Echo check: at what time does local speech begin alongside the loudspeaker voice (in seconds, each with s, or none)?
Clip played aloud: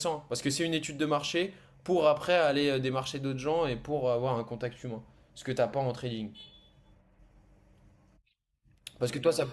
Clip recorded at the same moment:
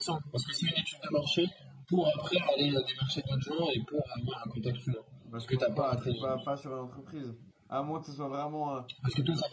5.2 s